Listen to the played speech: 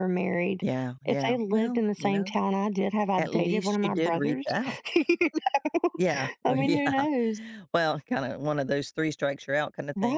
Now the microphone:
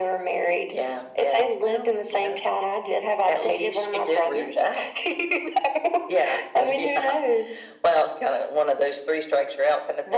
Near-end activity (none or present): none